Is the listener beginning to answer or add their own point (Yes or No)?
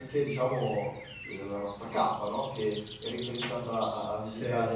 No